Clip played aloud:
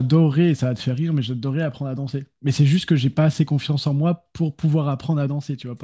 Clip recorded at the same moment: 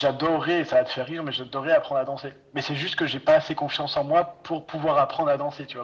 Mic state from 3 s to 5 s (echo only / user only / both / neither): echo only